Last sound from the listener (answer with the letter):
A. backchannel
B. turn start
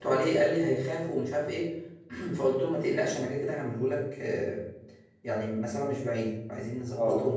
B